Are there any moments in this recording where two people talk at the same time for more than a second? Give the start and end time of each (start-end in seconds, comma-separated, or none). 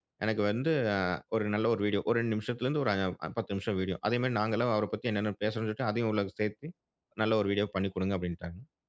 none